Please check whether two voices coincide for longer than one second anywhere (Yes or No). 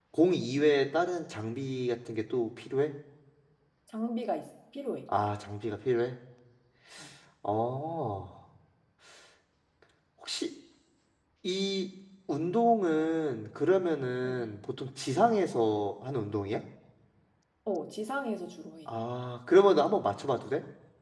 No